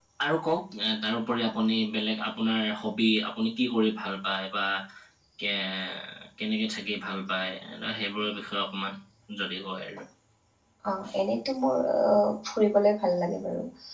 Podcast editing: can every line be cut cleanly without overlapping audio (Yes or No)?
Yes